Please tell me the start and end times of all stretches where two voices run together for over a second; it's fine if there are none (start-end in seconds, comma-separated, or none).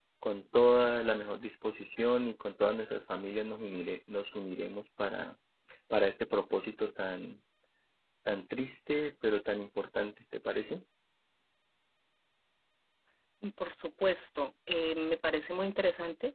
none